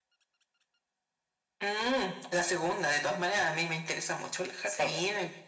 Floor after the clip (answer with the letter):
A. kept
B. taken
A